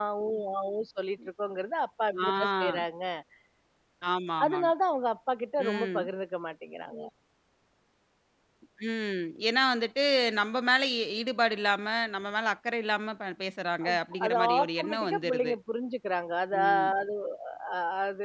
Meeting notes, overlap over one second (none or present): present